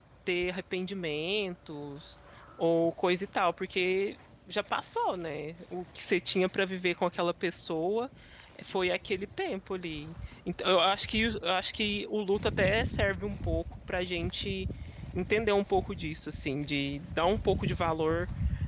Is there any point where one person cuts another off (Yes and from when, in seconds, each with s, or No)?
No